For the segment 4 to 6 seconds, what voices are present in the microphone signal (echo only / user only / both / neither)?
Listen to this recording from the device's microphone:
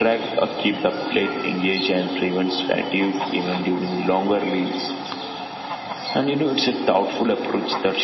echo only